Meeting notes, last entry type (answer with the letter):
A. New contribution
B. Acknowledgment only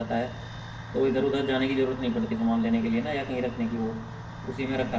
A